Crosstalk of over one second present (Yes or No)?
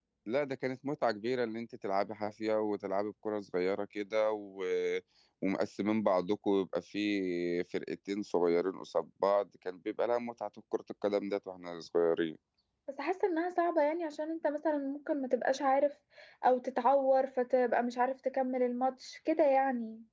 No